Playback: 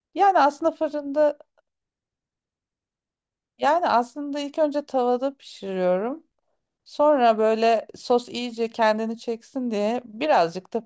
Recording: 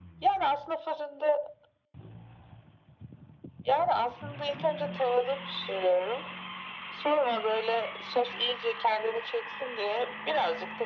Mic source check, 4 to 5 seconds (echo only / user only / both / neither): echo only